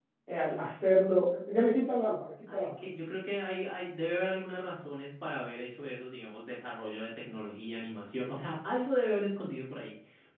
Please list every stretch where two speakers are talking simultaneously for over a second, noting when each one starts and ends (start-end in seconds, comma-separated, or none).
none